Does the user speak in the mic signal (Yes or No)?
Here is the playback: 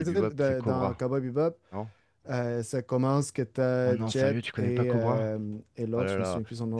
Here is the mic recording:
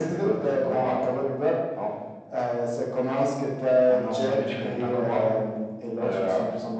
No